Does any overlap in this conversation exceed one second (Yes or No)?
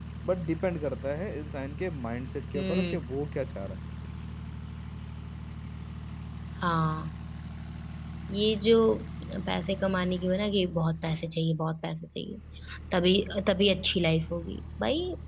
No